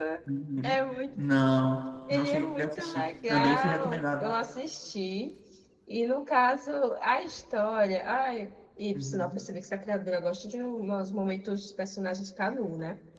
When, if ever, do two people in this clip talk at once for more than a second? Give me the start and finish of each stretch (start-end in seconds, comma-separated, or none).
2.1-4.3